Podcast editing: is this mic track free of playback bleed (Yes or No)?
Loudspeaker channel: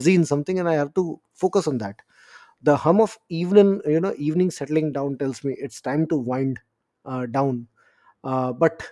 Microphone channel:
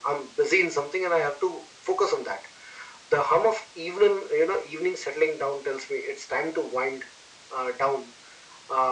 No